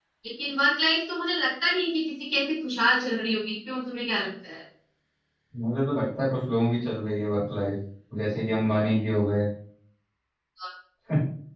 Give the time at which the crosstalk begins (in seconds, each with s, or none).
none